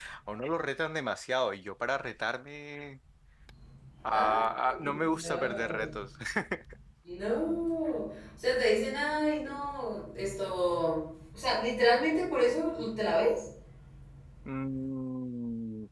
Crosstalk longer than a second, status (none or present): present